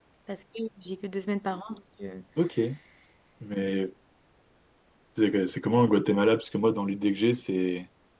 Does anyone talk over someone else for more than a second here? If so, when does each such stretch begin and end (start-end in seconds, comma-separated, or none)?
none